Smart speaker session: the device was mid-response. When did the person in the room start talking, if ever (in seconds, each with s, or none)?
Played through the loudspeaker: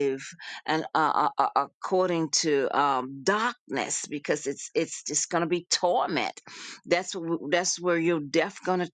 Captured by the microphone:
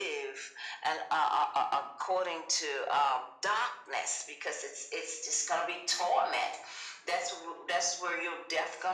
none